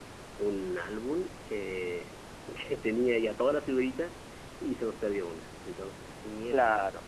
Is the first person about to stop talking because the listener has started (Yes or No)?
Yes